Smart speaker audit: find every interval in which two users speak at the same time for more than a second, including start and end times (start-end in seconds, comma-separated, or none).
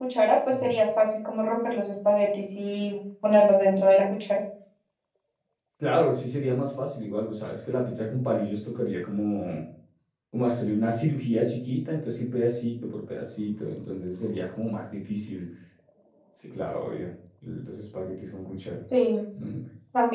none